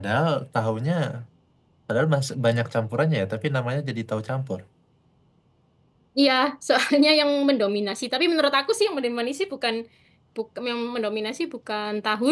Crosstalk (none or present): none